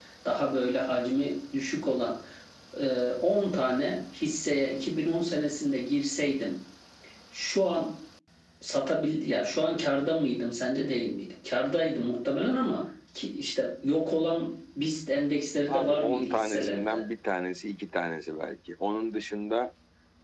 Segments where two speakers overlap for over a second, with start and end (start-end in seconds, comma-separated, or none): 15.7-17.0